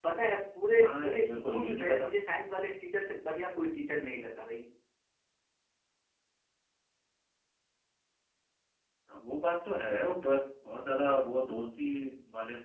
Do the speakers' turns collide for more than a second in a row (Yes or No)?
Yes